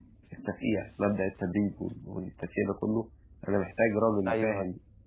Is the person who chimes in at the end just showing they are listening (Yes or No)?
Yes